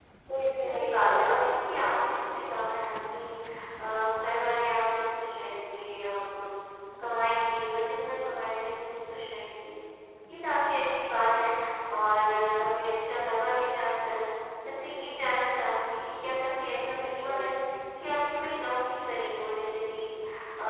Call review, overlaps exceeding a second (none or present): present